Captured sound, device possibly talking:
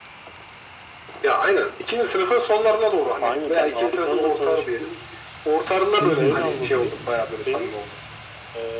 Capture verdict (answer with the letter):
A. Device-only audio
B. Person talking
B